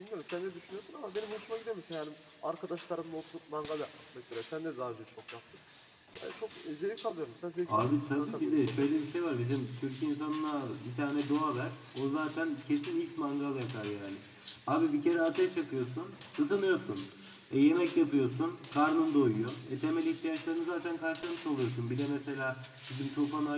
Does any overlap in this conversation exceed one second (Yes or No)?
Yes